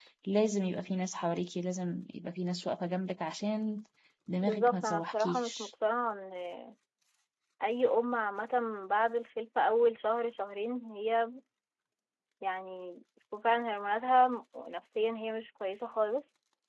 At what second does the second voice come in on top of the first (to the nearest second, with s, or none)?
4 s